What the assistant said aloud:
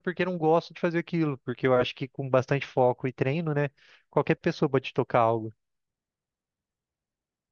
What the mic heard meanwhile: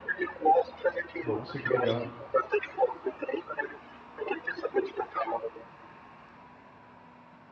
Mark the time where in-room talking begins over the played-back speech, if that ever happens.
1.2 s

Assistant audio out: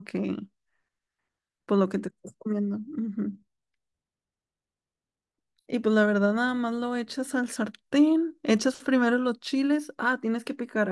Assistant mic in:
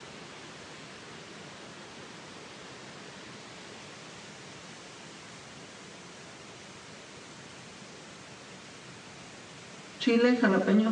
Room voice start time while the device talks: 10.0 s

